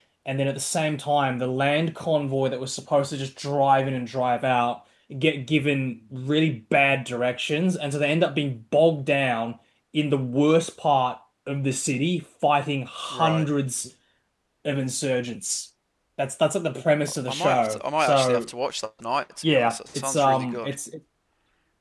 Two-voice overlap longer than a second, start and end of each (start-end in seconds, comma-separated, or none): 17.1-18.5, 19.4-20.7